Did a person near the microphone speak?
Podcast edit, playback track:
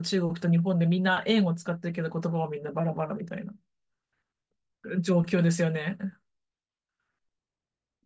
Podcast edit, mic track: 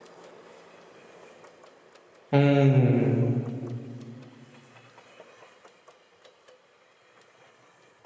Yes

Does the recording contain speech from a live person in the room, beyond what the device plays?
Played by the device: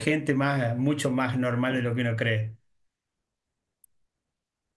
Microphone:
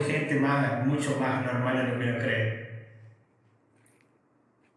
No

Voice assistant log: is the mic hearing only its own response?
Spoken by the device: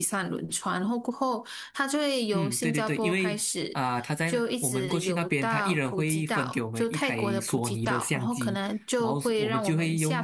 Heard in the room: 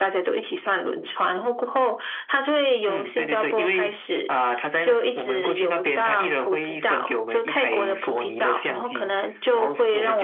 Yes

